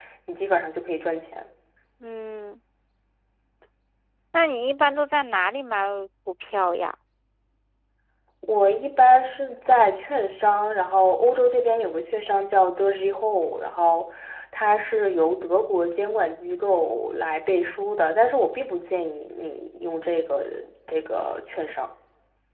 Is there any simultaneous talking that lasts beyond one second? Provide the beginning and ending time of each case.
none

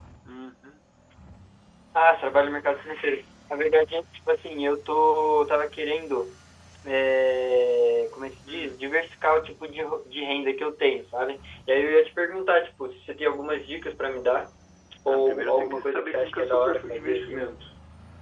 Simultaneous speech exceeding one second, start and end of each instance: 15.1-17.5

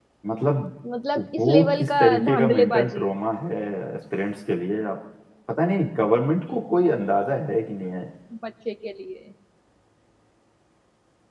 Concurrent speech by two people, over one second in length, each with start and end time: 1.4-3.1

